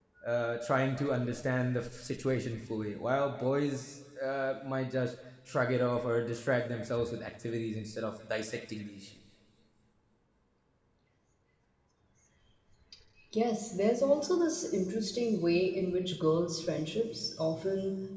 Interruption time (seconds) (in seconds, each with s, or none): none